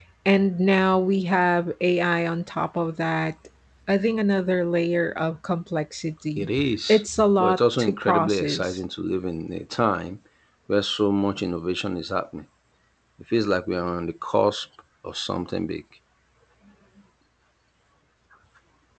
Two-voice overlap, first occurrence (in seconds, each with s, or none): 6.9 s